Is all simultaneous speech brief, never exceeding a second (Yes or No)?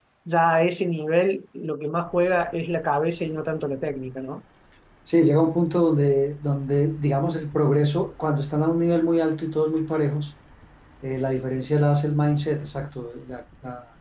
Yes